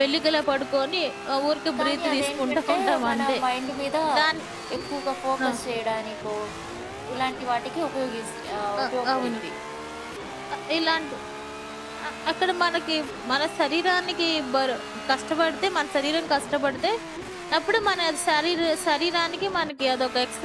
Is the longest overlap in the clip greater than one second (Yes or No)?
Yes